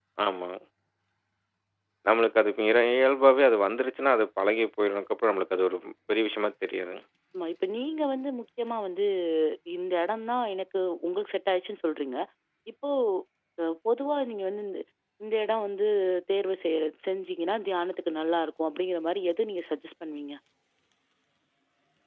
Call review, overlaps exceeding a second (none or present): none